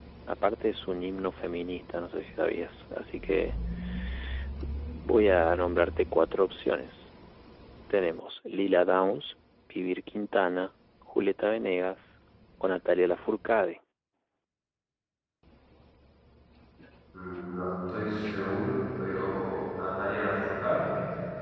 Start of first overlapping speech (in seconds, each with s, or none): none